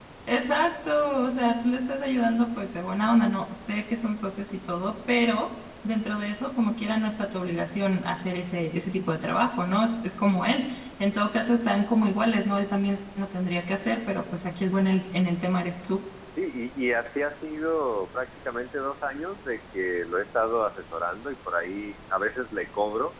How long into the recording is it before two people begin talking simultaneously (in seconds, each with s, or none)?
none